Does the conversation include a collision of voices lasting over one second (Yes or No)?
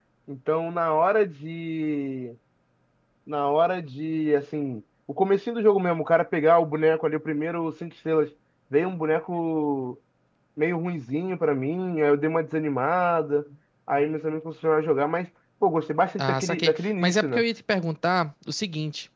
Yes